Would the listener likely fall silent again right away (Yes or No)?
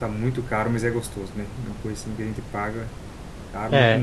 No